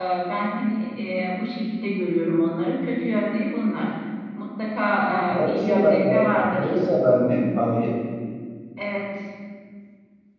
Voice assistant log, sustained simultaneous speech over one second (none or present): present